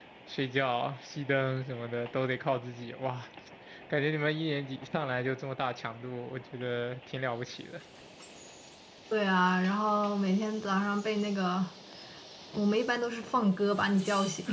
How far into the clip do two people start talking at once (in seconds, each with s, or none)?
none